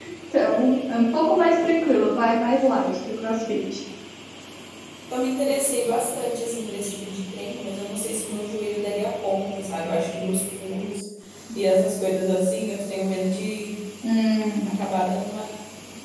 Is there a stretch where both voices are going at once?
No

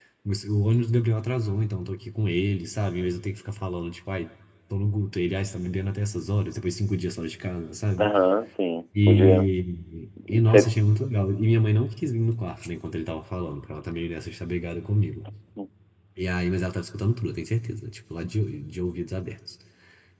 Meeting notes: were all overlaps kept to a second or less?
Yes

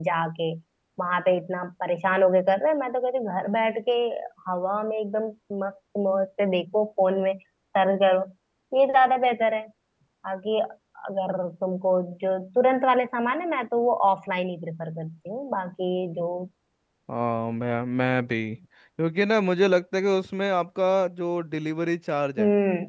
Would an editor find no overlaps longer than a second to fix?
Yes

